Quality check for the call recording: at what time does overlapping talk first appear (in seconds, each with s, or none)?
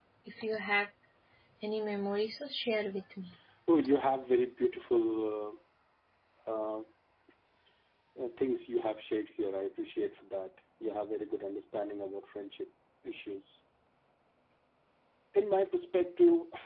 none